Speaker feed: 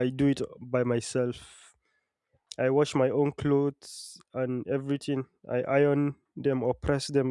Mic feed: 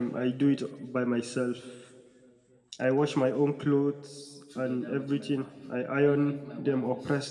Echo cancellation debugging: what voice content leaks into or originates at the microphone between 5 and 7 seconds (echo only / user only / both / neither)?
both